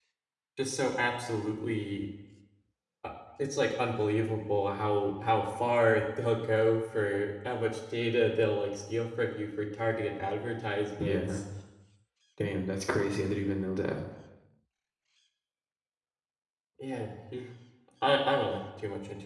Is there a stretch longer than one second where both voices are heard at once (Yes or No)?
No